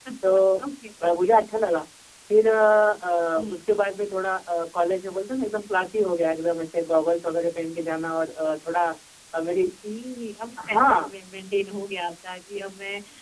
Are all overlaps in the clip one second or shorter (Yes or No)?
Yes